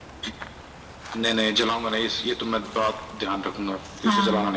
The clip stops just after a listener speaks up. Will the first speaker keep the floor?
No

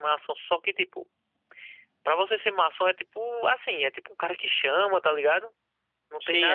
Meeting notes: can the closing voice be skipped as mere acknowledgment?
No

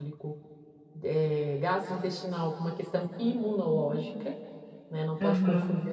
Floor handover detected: No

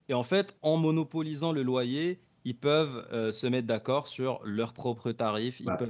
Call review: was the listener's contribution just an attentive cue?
Yes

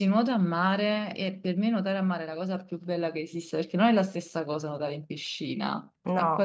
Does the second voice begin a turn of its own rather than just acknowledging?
Yes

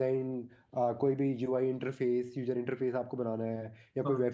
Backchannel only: Yes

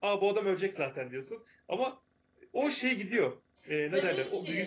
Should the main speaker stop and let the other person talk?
Yes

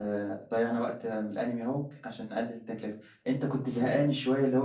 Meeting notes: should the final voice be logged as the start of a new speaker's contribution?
No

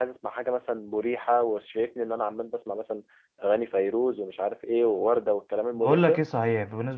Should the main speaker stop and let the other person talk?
Yes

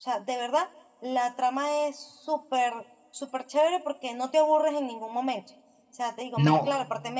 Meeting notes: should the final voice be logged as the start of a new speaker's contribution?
No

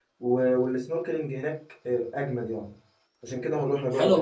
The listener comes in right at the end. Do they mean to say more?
Yes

